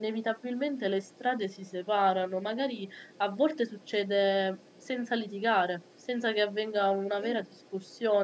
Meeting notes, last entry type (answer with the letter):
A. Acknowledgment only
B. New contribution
A